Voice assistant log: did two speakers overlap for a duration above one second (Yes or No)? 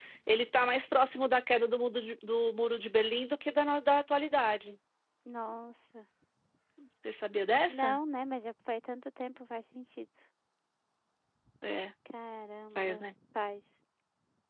No